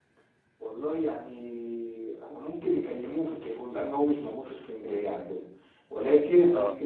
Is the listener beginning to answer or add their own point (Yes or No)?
No